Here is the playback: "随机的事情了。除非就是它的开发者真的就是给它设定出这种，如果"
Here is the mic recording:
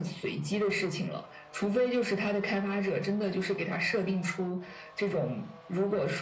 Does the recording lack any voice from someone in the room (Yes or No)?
Yes